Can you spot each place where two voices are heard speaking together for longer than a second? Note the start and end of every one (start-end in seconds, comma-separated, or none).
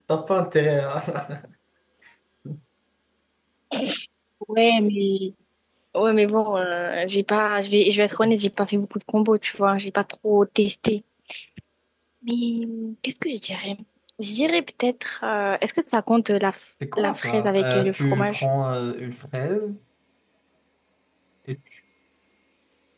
17.0-18.4